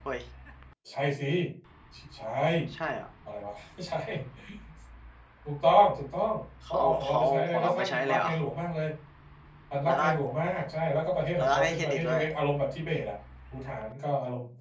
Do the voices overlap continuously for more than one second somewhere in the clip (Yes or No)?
Yes